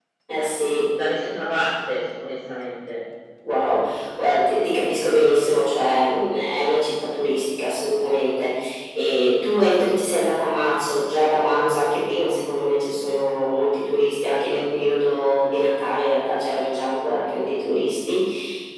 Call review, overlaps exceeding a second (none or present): none